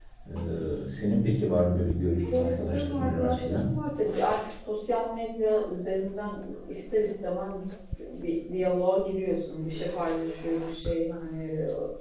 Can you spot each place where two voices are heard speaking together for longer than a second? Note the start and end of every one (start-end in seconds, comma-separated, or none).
2.3-3.7